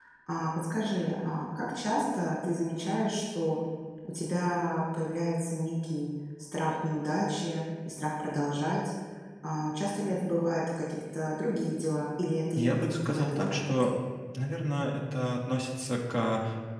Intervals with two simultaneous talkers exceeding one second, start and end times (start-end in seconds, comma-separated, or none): 12.5-13.9